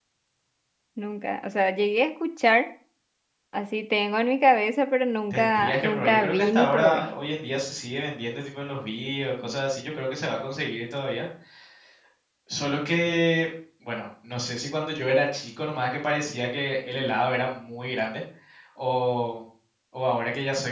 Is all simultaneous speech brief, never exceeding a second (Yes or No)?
No